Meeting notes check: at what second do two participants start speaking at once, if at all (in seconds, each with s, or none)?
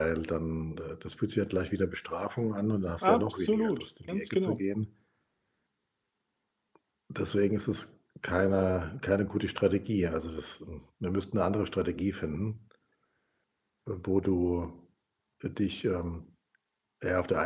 3.0 s